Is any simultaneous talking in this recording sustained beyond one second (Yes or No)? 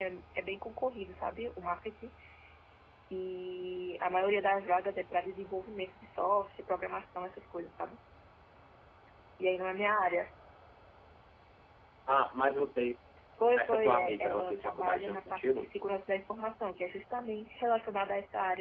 Yes